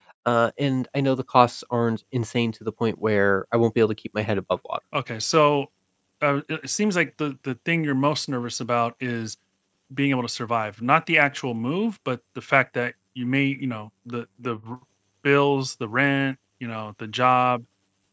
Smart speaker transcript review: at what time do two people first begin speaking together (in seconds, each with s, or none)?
none